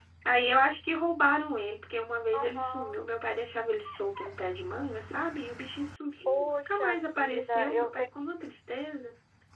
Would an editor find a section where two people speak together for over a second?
Yes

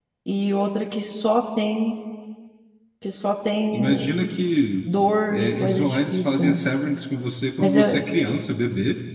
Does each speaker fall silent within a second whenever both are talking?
No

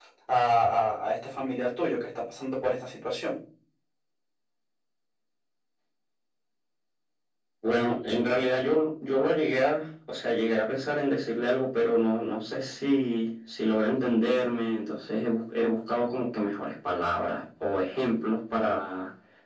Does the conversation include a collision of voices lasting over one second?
No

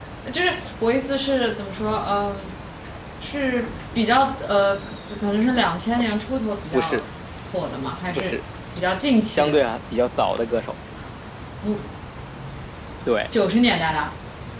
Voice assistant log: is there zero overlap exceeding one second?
Yes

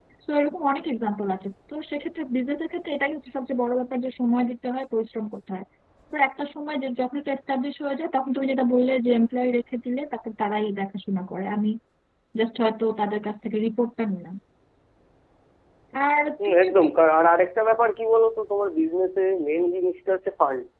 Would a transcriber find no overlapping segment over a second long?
Yes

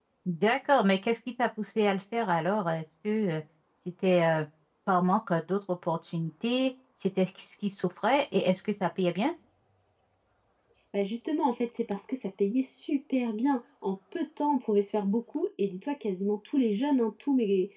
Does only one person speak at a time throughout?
Yes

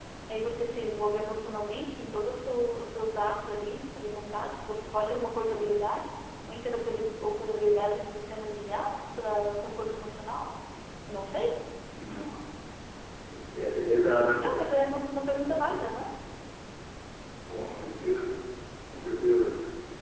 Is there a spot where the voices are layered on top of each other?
No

